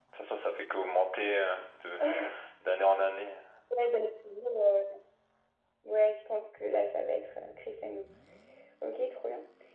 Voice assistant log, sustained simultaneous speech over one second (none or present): none